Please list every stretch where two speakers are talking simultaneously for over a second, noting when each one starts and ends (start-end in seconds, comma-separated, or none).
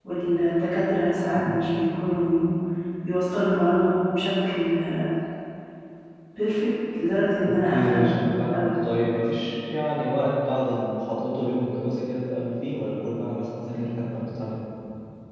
7.4-8.7